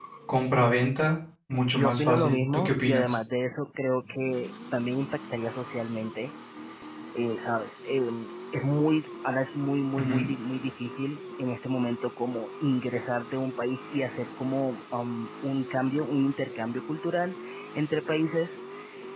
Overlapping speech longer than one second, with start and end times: 1.5-3.1

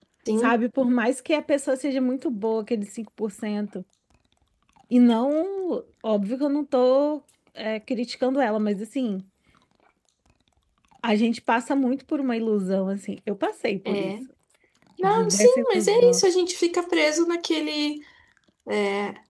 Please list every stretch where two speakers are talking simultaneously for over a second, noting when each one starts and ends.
15.0-16.2

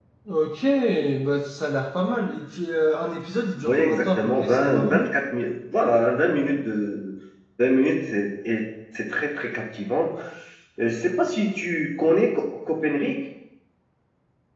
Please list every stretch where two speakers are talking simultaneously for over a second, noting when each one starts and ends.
3.6-5.1

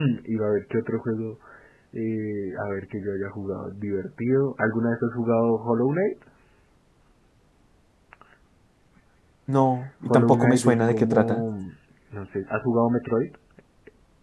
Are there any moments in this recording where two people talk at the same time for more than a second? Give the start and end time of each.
10.1-11.4

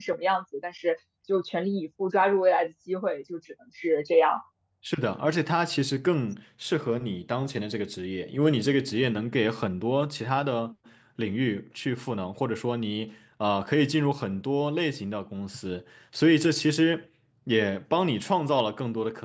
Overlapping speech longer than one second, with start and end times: none

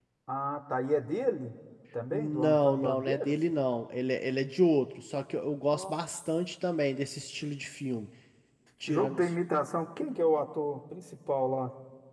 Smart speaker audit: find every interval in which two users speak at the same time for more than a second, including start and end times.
2.1-3.4

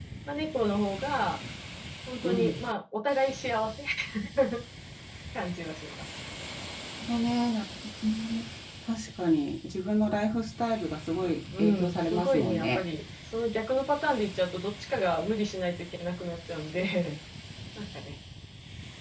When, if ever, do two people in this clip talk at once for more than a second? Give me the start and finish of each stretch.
11.6-12.8

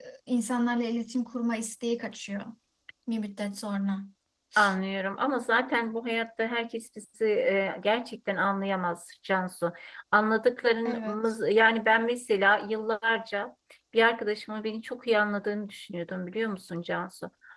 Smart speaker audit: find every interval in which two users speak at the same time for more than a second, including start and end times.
none

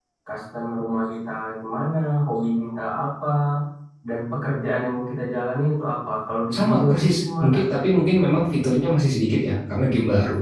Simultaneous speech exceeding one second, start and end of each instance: 6.5-7.8

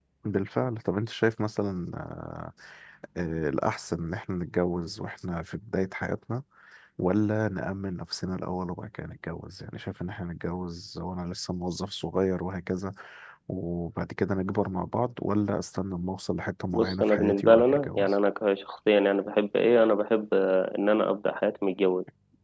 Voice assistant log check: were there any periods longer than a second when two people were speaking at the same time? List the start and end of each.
16.7-18.1

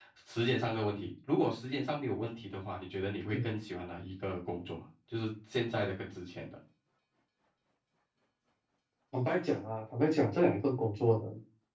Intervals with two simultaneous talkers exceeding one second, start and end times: none

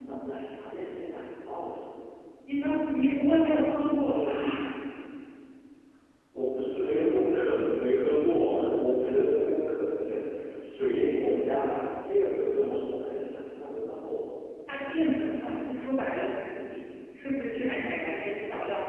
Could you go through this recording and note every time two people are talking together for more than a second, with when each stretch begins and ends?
none

